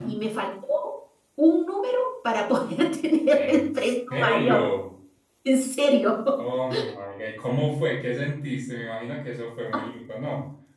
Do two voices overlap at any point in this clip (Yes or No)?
Yes